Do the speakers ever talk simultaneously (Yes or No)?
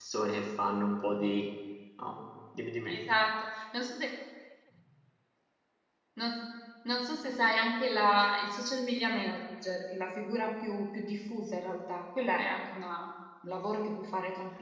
No